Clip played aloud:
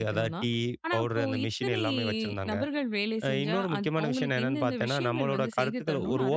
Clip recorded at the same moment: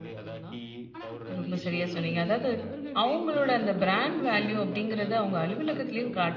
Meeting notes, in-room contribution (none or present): present